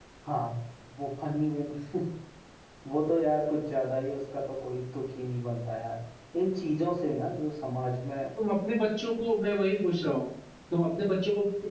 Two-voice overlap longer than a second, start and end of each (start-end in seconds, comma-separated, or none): none